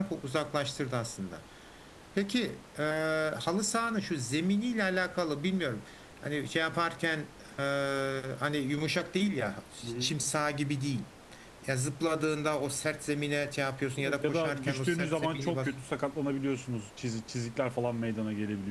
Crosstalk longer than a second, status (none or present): present